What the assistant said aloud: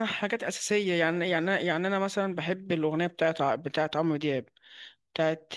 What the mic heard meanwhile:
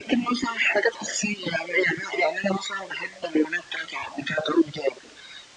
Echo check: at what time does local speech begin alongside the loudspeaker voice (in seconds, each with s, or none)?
none